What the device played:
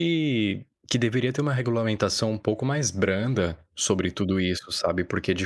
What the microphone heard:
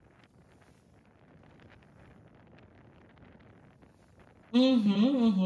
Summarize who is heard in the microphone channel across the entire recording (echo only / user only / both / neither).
user only